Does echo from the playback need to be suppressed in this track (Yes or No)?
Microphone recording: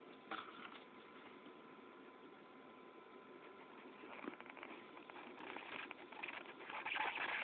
No